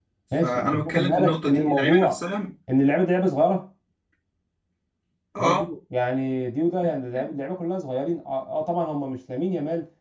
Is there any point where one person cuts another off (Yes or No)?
Yes